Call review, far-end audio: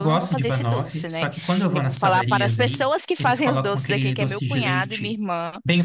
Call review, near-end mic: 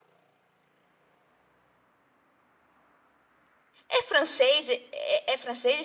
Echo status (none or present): none